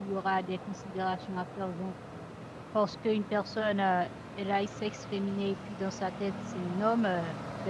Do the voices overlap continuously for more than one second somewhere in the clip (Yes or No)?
No